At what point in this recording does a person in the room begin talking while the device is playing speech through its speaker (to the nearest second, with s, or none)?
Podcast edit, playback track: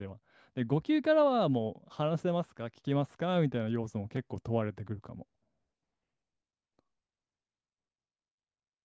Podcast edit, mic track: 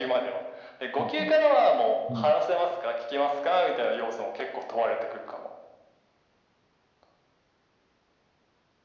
1 s